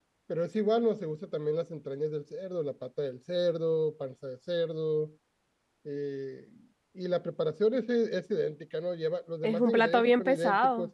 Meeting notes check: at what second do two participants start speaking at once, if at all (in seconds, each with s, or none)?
9.4 s